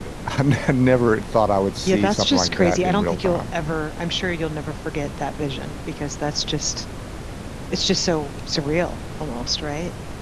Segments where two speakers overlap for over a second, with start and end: 1.9-3.5

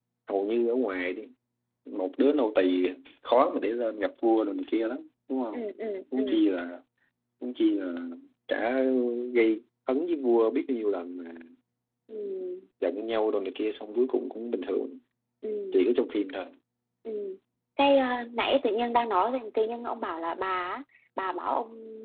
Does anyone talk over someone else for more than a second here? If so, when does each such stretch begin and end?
none

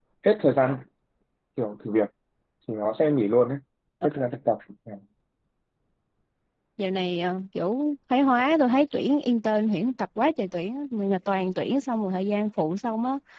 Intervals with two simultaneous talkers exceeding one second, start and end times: none

